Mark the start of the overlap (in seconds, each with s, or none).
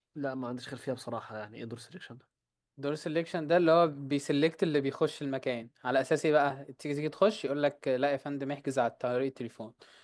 none